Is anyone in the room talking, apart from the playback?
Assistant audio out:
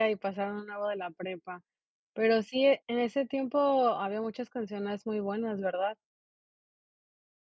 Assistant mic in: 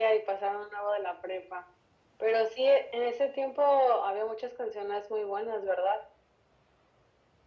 No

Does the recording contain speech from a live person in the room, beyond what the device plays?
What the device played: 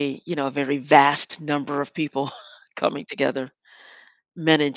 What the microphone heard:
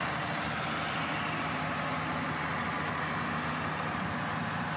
No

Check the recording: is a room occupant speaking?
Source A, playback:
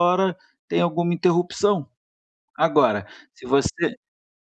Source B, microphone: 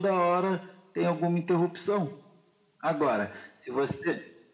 No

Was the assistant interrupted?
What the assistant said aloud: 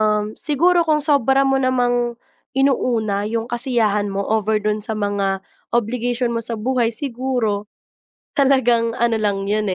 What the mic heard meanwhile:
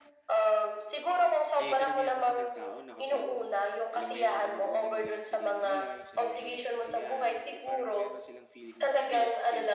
Yes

